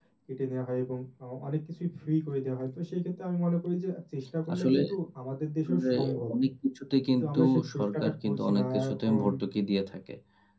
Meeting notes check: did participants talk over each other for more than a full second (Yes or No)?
Yes